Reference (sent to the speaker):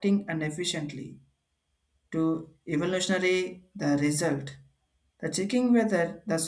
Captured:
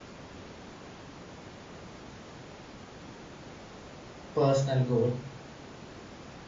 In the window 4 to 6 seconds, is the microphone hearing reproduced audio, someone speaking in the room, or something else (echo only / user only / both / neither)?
user only